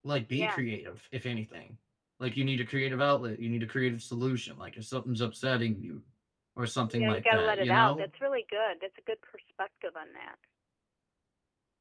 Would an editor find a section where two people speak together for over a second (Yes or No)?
Yes